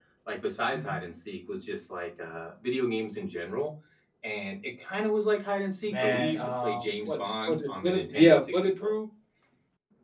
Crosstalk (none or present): present